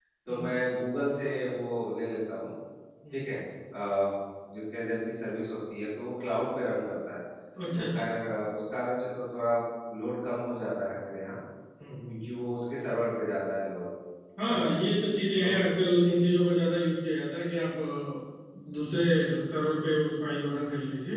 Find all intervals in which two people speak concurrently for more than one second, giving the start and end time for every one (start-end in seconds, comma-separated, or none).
none